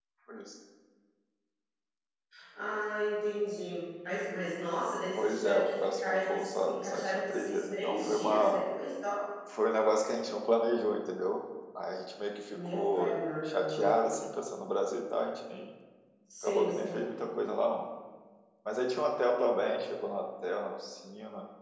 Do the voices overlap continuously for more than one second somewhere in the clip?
Yes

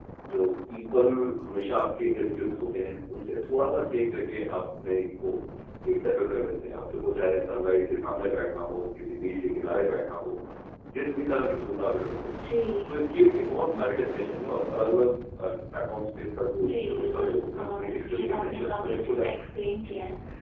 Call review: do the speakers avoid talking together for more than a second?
No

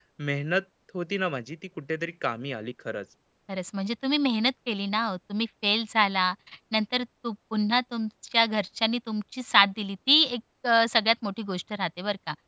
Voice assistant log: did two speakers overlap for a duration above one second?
No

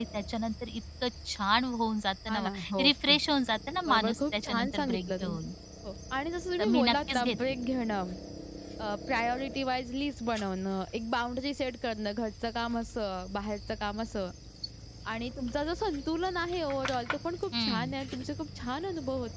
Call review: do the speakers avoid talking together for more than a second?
No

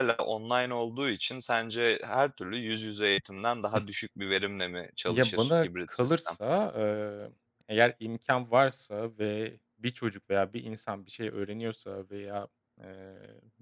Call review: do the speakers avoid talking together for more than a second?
No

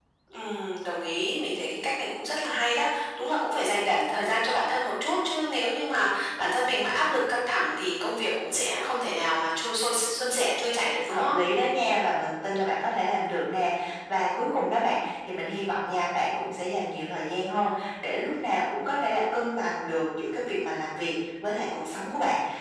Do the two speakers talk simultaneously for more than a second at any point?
No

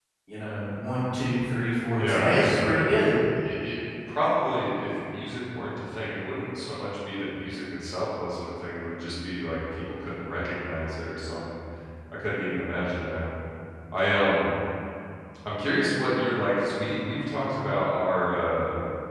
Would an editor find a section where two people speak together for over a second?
Yes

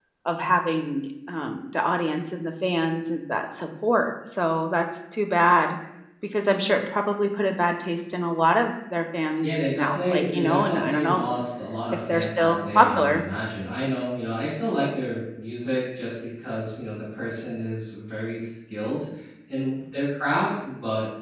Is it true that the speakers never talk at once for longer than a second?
No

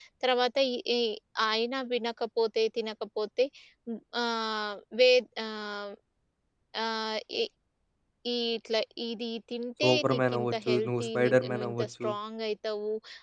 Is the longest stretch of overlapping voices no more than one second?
No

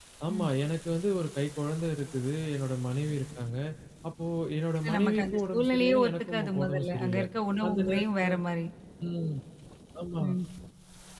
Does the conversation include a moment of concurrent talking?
Yes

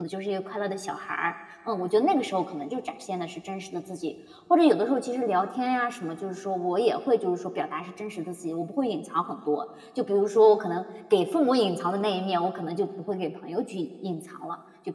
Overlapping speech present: No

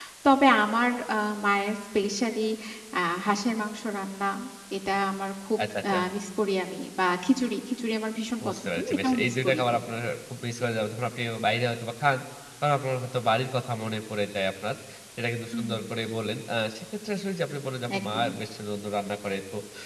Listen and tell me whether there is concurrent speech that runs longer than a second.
Yes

